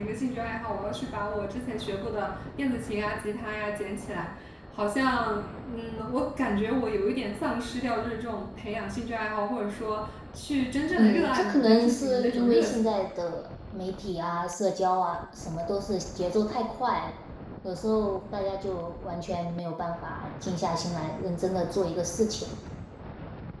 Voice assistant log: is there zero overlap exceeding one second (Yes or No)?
No